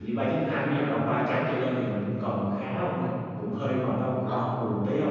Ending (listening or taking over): listening